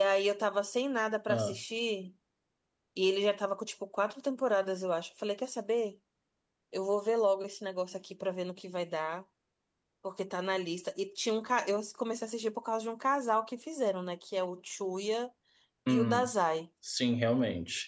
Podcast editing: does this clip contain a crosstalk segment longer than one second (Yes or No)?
No